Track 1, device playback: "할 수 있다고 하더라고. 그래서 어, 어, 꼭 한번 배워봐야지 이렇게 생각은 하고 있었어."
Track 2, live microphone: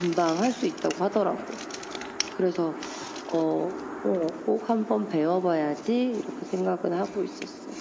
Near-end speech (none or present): none